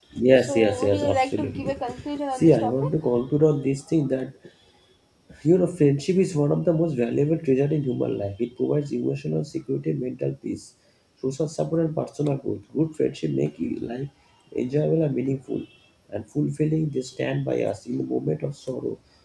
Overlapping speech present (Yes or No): Yes